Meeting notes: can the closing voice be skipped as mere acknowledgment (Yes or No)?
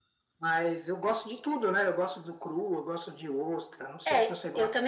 No